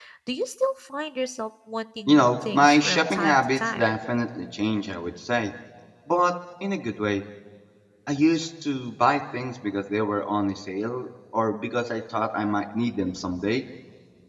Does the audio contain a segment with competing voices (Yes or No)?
Yes